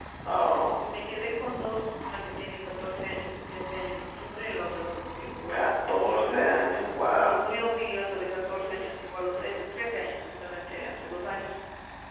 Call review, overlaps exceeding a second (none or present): none